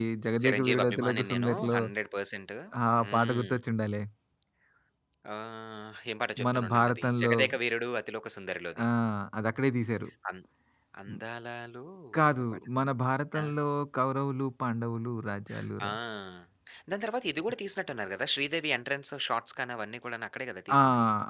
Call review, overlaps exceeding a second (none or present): present